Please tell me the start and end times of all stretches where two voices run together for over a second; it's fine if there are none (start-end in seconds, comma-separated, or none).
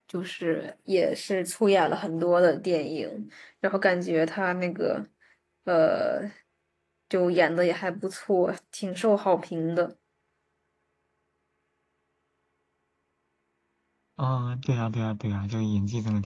none